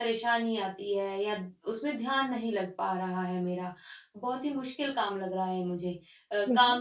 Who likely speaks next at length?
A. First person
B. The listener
A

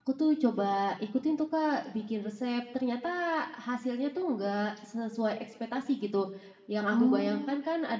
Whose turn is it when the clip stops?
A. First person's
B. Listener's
A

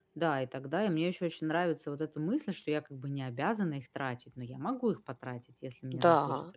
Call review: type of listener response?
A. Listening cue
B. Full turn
B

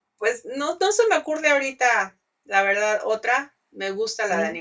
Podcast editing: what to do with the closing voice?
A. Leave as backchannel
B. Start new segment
A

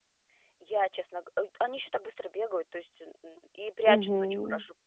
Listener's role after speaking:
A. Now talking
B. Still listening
B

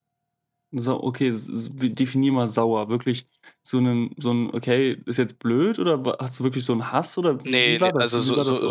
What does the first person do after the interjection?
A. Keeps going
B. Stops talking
B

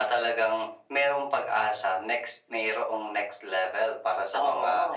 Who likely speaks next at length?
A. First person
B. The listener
A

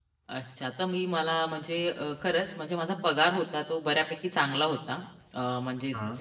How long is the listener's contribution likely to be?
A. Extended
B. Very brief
B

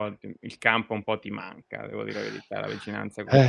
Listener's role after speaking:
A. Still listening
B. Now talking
B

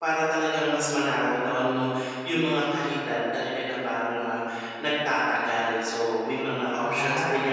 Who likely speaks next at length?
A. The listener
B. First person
B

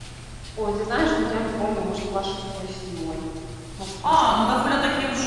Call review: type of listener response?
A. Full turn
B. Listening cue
A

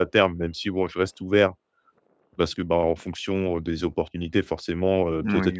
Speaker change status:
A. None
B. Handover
A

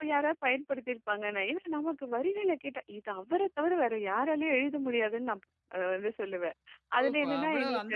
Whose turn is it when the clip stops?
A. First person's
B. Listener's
B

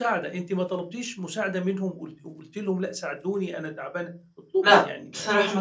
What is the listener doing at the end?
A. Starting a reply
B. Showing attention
A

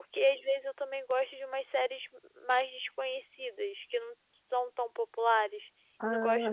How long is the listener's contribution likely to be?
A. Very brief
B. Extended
A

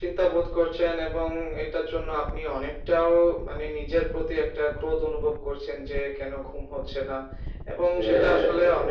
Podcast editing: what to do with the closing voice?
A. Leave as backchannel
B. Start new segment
A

